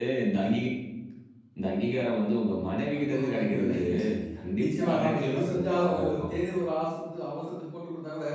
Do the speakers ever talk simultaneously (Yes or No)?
Yes